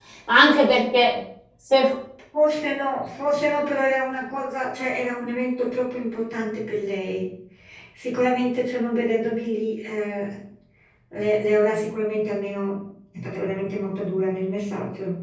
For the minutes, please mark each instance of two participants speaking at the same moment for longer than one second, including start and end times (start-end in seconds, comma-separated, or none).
none